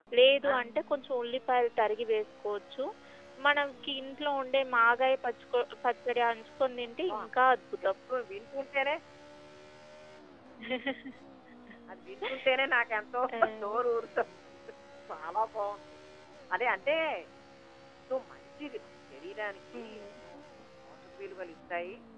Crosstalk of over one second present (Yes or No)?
No